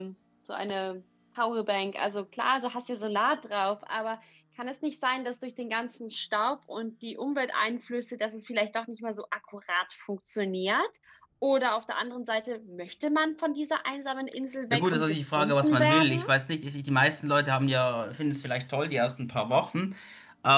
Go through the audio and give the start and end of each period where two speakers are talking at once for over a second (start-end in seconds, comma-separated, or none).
14.7-16.2